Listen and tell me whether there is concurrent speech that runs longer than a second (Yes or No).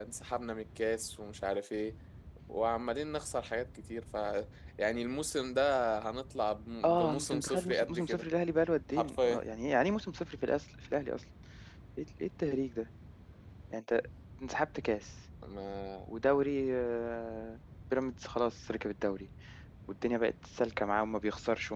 Yes